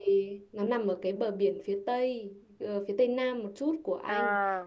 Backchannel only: Yes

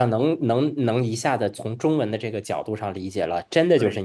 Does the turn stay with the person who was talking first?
Yes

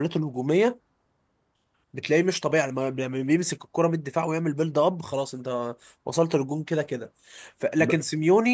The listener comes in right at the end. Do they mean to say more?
No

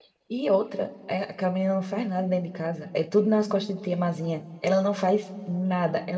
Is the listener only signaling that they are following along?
Yes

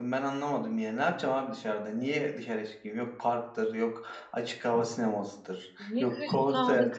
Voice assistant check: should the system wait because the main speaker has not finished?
No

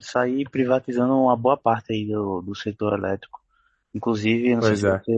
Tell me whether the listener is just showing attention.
Yes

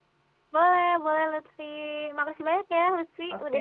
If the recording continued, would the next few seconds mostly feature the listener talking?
Yes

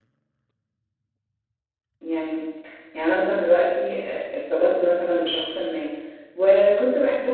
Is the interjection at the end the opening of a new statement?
No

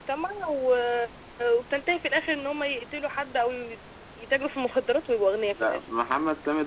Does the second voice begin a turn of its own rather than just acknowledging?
Yes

